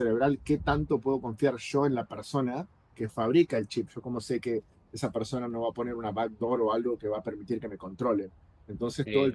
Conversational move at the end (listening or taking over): listening